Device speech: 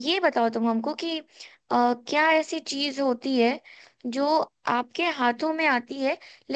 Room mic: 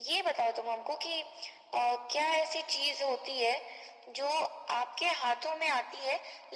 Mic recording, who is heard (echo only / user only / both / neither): echo only